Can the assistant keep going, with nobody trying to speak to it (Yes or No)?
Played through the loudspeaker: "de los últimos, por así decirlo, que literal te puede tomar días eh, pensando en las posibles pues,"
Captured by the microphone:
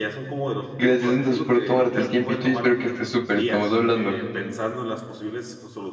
No